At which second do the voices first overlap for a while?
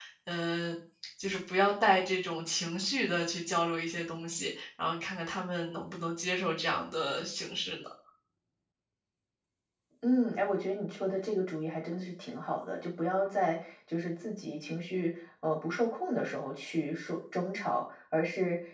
none

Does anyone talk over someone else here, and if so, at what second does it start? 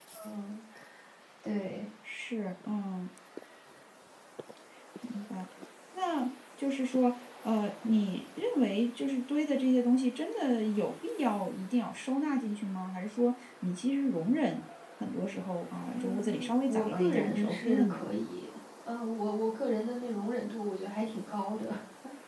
16 s

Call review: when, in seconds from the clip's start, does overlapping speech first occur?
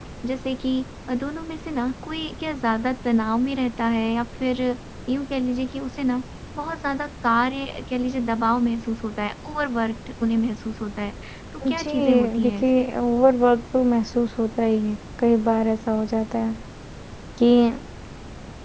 12 s

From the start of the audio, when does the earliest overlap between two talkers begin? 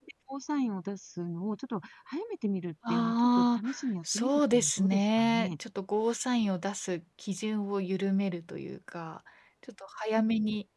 3 s

